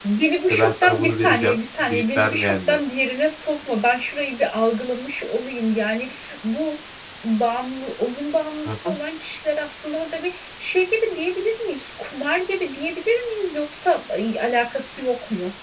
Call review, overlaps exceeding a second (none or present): present